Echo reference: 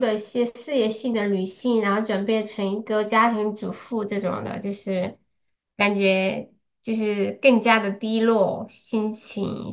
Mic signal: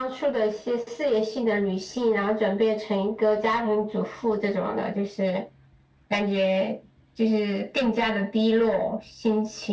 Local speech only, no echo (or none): none